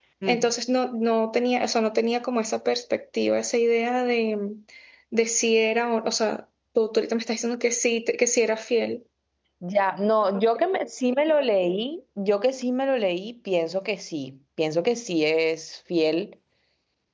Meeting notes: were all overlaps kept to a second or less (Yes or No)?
Yes